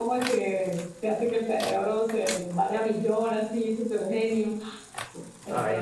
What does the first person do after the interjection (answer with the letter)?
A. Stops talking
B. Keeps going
A